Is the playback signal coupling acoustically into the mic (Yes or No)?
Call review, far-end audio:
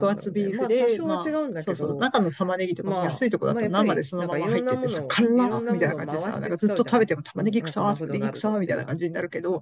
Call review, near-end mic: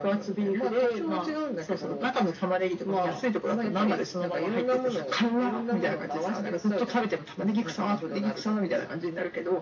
Yes